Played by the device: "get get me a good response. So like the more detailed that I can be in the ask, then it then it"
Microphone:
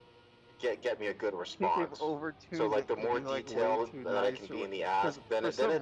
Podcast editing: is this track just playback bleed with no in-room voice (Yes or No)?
No